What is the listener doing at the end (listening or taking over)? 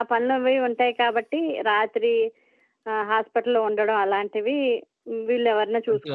taking over